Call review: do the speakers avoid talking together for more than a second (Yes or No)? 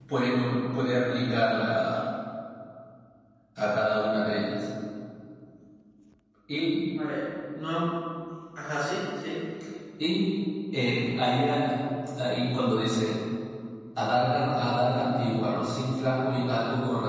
Yes